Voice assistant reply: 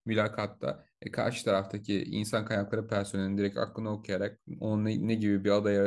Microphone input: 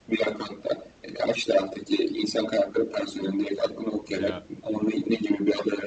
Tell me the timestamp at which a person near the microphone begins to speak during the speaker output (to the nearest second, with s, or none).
4 s